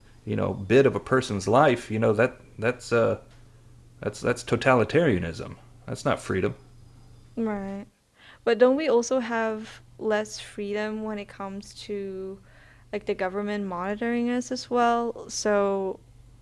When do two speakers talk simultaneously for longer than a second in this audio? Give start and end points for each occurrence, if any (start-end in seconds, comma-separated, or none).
none